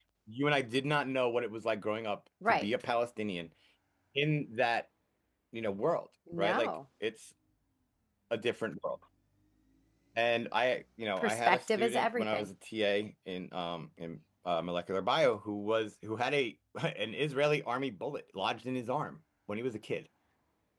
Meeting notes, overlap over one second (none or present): present